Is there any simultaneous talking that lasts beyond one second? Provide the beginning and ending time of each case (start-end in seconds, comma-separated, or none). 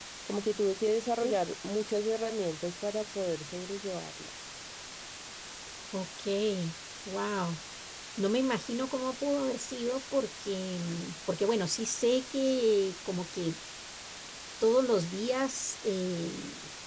none